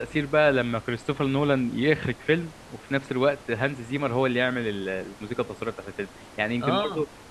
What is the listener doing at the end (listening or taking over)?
listening